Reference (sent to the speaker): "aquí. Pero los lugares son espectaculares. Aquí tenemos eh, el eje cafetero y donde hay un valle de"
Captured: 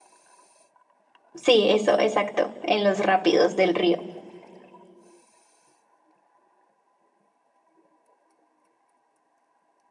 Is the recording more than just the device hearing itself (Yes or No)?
Yes